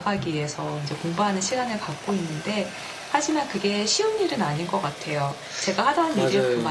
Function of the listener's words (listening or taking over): listening